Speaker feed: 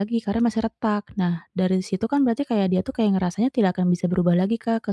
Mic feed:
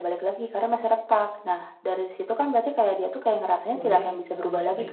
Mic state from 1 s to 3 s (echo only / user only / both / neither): echo only